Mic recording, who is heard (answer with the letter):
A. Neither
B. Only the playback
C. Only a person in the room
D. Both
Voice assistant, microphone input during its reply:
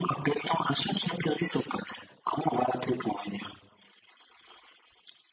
B